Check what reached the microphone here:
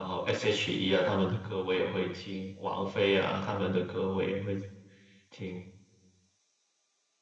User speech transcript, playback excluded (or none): none